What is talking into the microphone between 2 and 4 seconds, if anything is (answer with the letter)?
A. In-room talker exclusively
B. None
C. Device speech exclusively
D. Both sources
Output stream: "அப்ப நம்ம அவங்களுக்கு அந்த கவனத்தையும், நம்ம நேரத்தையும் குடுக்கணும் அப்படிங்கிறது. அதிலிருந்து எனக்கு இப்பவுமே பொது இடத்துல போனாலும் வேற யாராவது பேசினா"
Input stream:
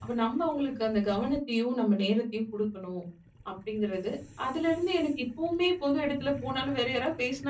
C